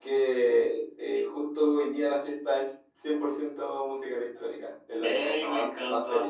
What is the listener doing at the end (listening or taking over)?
taking over